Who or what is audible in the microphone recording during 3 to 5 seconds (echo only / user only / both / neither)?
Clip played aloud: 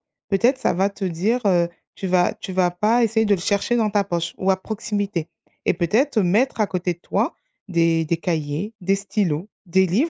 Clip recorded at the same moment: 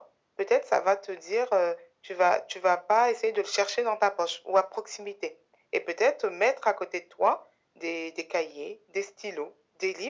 echo only